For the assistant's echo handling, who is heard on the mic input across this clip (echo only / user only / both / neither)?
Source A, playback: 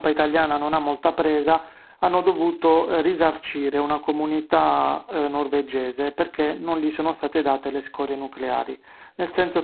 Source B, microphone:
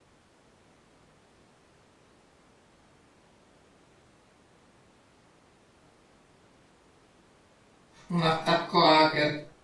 user only